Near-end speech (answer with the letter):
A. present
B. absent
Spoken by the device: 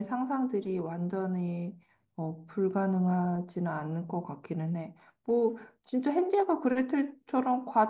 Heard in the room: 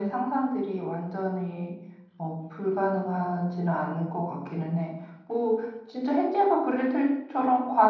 B